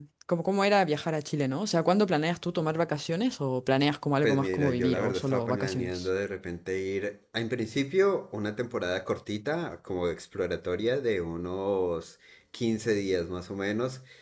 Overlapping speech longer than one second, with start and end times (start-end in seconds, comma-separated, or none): 4.2-6.1